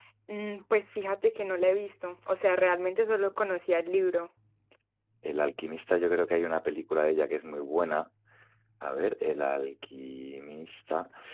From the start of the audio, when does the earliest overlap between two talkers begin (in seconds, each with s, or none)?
none